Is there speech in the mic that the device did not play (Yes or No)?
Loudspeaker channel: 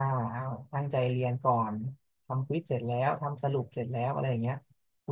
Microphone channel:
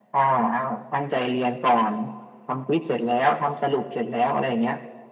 No